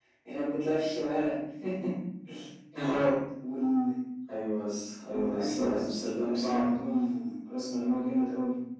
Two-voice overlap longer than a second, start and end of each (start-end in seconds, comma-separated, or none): 5.1-6.7